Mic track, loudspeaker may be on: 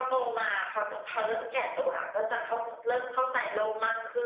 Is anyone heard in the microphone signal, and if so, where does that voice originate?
echo only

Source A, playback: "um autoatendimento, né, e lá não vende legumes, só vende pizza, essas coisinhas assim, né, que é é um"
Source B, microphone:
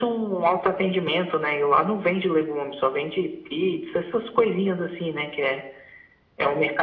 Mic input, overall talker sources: echo only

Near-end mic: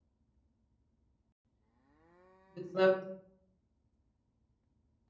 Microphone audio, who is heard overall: user only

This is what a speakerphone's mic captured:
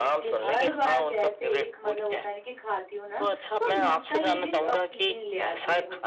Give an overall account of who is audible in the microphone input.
both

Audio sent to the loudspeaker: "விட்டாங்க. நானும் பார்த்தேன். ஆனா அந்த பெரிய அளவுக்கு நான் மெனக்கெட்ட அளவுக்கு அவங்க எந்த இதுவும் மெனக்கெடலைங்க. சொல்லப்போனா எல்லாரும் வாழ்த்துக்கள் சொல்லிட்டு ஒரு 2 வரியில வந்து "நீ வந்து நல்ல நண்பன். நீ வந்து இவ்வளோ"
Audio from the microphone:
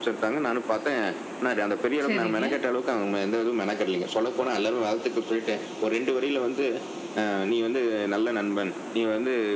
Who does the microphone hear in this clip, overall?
both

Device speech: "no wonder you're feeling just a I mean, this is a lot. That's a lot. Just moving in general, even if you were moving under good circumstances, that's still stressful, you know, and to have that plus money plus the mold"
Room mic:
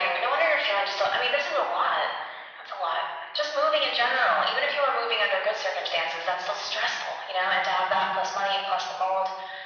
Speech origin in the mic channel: echo only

